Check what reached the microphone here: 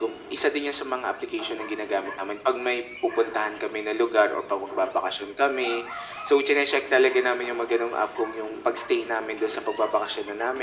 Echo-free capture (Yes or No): No